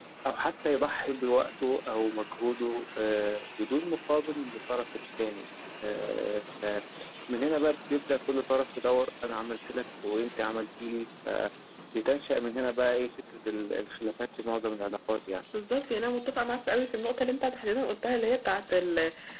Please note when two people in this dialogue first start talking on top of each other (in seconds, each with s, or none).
none